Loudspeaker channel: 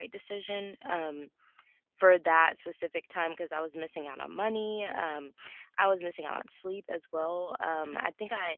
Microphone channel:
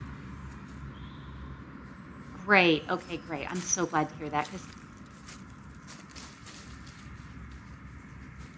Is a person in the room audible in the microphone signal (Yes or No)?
Yes